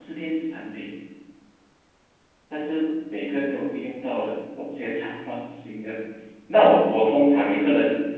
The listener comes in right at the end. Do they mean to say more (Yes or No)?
No